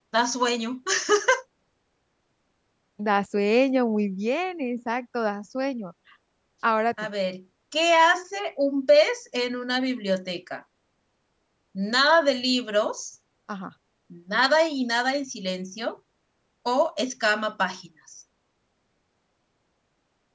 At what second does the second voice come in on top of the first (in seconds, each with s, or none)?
none